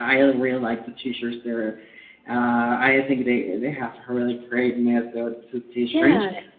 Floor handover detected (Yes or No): No